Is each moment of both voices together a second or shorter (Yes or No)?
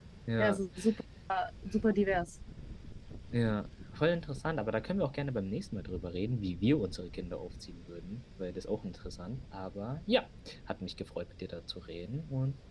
Yes